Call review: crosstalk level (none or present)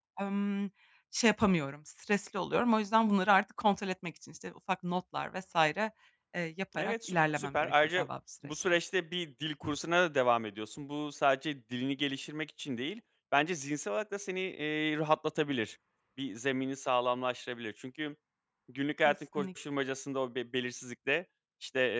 present